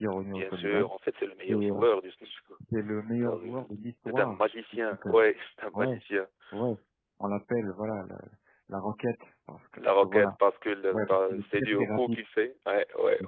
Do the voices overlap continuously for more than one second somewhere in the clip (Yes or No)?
Yes